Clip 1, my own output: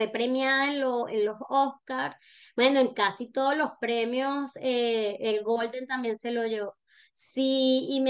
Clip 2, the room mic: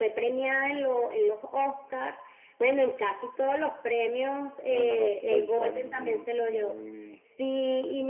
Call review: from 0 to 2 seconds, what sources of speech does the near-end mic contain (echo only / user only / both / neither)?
echo only